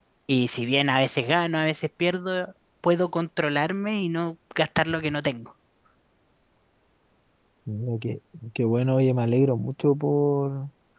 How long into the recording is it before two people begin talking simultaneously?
none

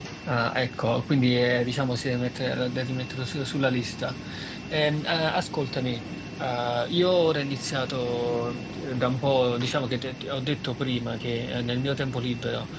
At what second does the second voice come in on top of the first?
none

